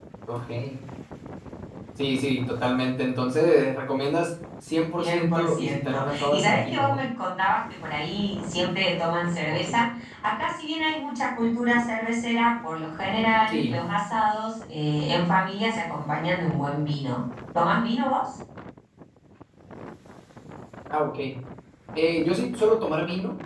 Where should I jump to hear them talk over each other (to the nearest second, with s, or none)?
5 s